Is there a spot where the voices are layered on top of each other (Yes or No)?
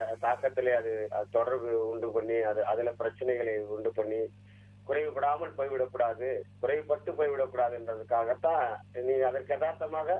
No